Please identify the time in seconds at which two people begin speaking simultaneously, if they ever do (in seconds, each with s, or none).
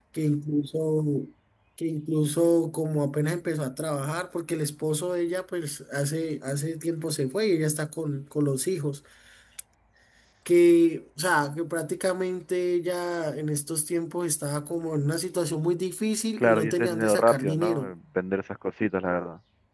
16.4 s